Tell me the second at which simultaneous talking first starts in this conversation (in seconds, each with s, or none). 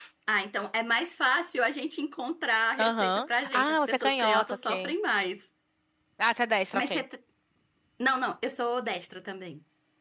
2.8 s